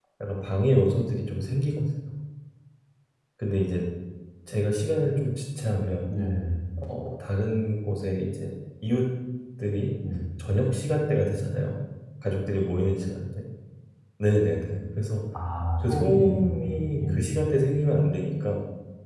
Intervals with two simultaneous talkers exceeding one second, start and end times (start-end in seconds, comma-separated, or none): 15.8-17.4